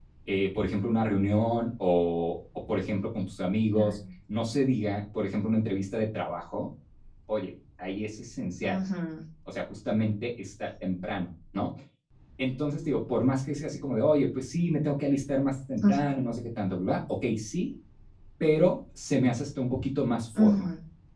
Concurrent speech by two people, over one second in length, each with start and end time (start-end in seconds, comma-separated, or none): none